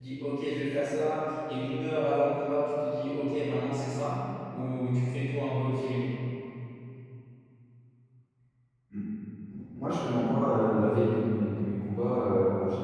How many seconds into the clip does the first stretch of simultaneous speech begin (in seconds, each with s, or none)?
none